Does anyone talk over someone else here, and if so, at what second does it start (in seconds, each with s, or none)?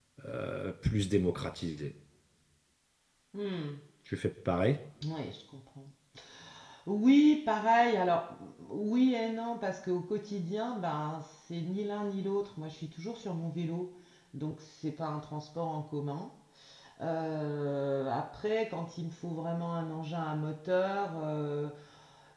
none